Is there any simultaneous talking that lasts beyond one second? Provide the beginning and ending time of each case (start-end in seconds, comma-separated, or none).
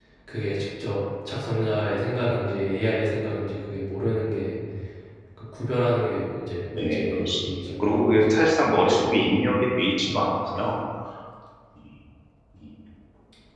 6.8-8.4